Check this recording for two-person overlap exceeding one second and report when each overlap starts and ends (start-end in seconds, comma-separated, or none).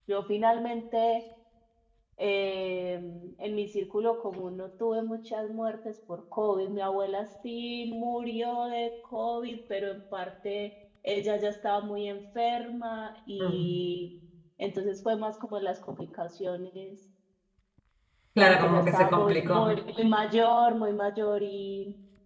18.4-19.7